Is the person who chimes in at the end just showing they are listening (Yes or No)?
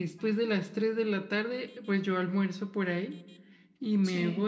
Yes